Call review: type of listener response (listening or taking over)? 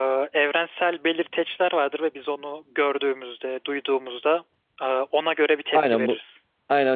taking over